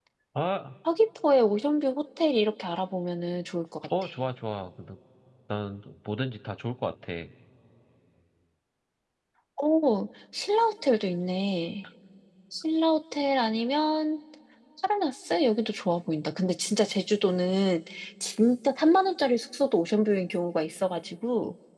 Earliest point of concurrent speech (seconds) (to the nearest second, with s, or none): none